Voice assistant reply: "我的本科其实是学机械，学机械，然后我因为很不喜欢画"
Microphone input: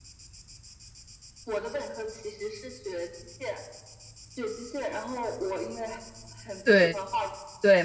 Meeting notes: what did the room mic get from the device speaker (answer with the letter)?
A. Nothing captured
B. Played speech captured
B